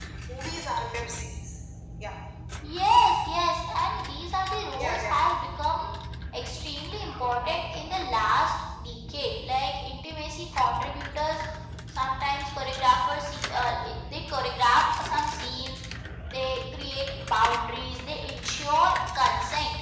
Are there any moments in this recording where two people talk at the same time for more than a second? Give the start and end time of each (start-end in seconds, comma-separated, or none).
none